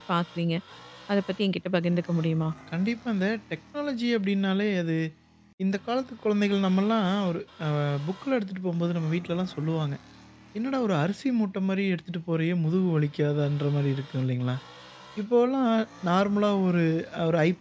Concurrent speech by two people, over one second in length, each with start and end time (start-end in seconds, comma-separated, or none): none